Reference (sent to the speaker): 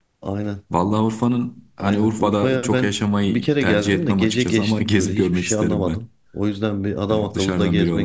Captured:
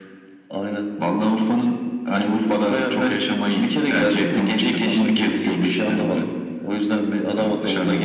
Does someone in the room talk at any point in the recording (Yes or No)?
No